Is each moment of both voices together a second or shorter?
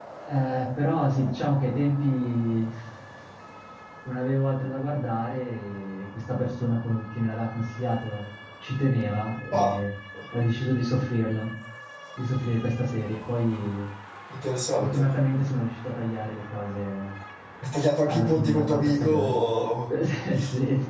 No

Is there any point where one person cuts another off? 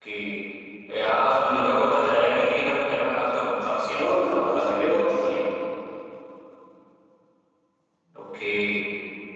Yes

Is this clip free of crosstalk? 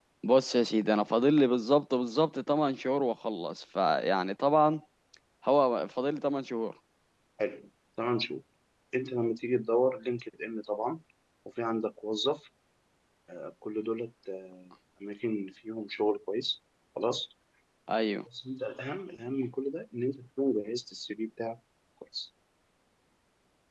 Yes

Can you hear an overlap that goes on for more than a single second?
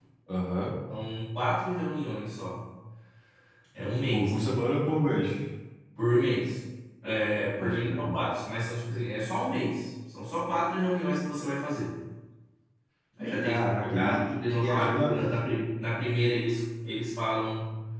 Yes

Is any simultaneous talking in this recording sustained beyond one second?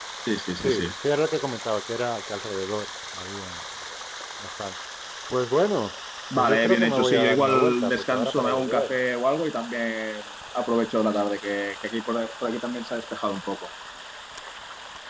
Yes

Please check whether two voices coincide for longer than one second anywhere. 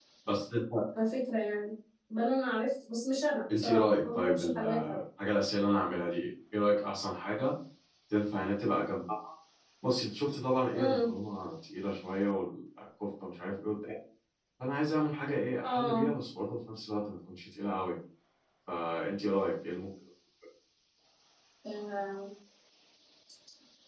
Yes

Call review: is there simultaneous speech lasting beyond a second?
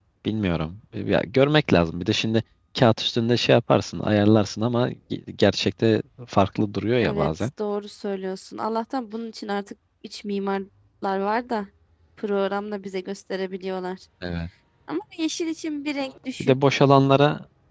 No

